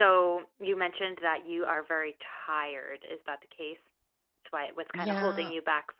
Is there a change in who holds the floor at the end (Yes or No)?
No